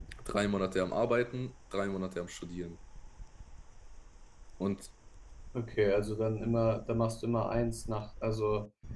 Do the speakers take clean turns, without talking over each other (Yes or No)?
Yes